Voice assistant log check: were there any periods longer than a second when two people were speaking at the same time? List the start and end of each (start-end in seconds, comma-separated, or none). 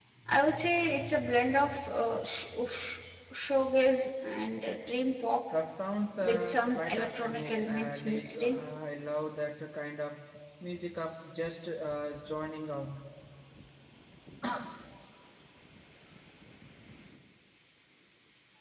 6.2-8.6